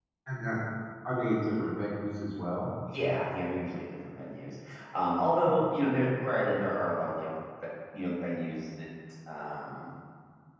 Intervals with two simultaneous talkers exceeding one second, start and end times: none

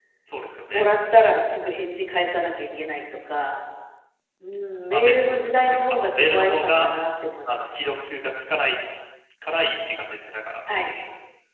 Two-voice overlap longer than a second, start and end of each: 4.9-6.9

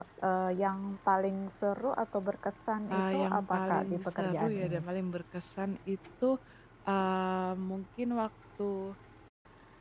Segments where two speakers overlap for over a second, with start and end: 2.9-4.8

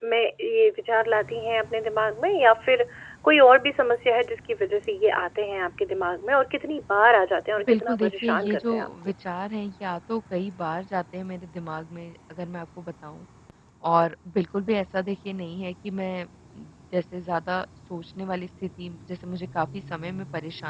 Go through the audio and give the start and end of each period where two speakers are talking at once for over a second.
7.6-8.9

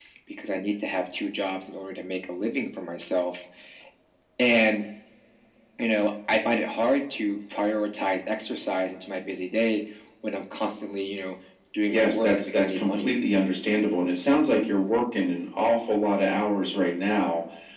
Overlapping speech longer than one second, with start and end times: 11.9-13.1

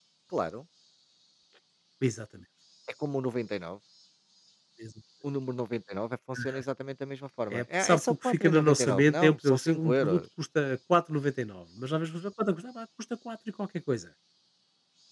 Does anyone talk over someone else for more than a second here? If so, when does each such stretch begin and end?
7.5-10.2

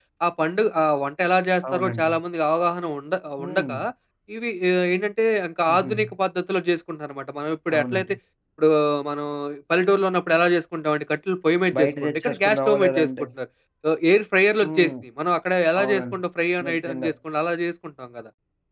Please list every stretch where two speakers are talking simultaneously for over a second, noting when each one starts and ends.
11.8-13.1

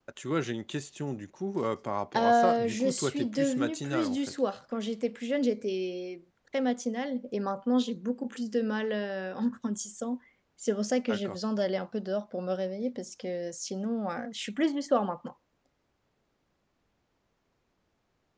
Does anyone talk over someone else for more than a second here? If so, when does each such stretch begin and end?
2.2-4.4

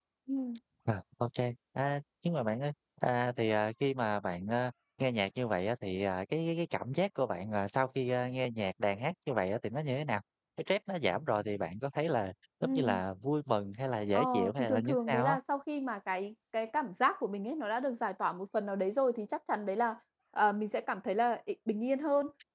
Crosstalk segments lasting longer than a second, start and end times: 14.1-15.4

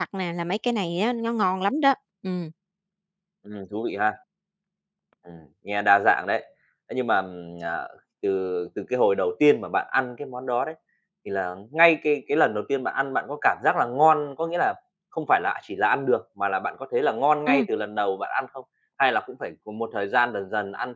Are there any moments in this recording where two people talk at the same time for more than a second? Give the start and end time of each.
none

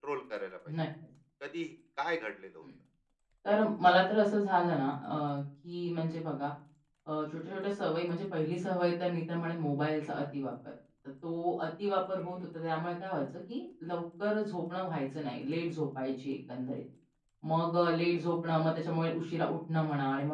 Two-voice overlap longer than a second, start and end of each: none

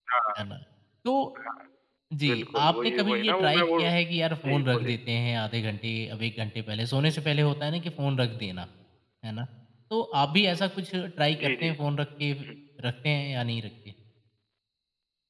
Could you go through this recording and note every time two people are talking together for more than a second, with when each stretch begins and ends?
2.2-3.8

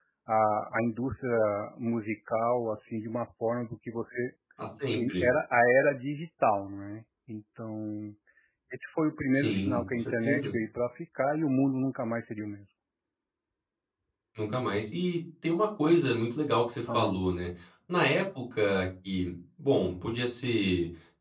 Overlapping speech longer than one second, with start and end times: 9.3-10.5

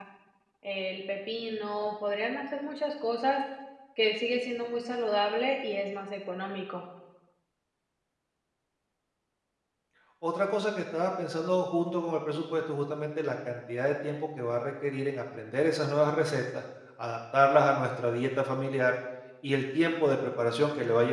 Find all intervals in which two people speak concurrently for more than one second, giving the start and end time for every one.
none

